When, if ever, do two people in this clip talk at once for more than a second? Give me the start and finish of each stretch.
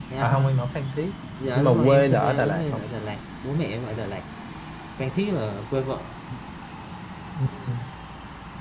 1.5-2.8

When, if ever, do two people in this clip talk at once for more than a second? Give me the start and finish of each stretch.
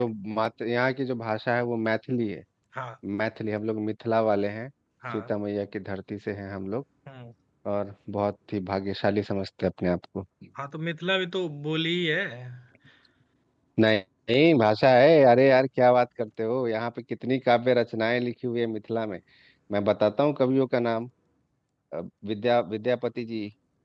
none

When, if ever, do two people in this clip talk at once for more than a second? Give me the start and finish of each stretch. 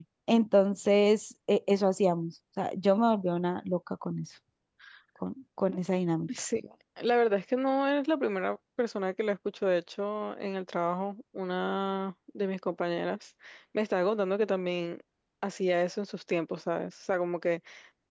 none

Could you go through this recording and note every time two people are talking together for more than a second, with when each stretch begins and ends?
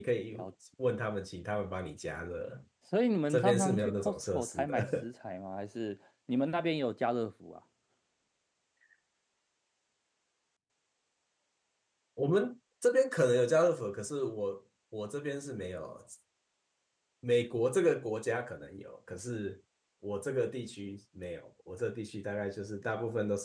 3.3-5.0

